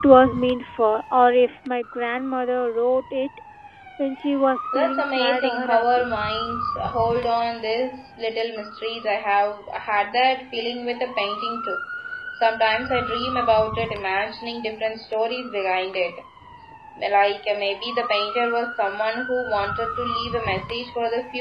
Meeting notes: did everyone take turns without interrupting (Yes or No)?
No